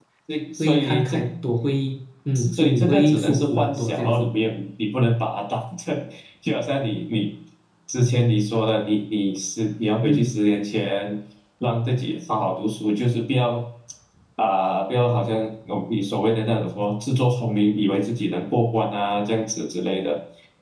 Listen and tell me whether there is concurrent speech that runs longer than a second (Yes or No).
Yes